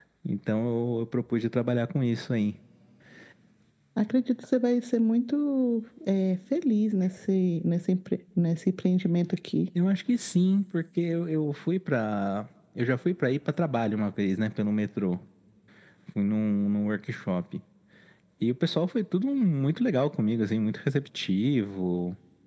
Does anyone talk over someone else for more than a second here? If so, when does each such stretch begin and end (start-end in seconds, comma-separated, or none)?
none